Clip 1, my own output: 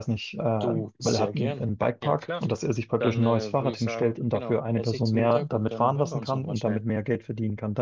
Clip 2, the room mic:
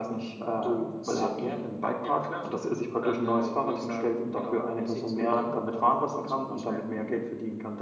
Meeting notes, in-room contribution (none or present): none